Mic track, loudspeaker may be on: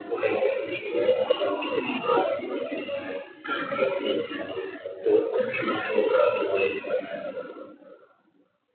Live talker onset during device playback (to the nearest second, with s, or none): none